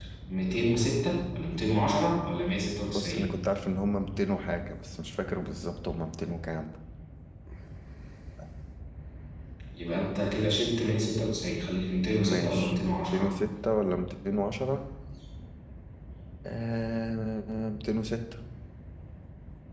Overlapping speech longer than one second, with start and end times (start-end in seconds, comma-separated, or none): 12.1-13.3